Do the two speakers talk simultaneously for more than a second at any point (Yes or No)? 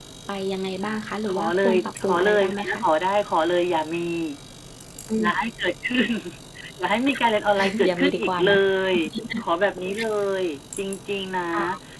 Yes